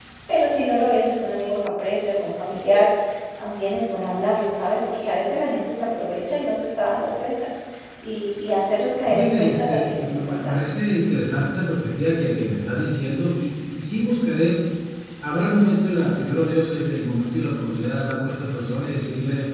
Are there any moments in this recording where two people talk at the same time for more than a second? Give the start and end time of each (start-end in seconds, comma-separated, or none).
9.0-10.6